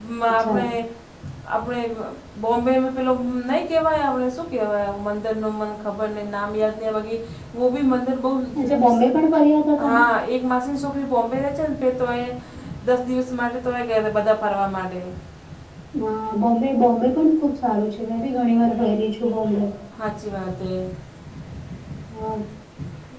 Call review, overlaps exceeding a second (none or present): none